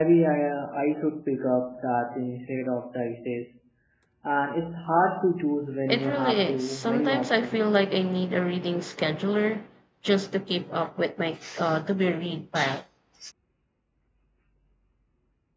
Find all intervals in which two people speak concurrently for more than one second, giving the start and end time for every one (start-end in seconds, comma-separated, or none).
5.9-7.8